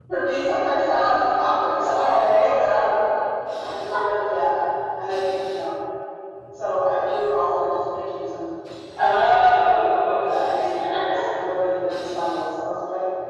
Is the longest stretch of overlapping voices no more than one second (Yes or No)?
No